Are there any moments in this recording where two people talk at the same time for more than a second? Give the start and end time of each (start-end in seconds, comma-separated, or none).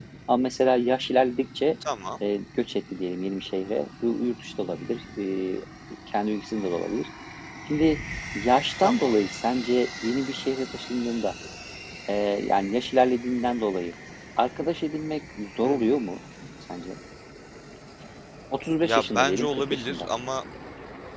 18.8-20.1